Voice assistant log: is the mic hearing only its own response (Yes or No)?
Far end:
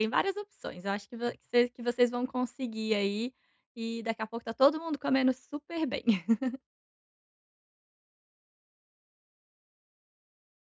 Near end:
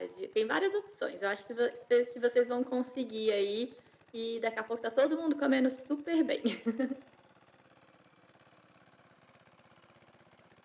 Yes